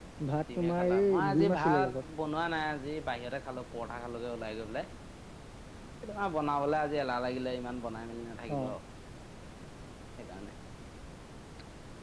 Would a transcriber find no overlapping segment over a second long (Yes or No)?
No